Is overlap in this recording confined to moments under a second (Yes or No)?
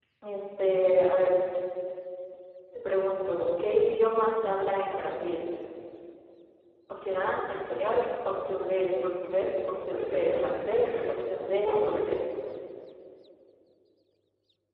No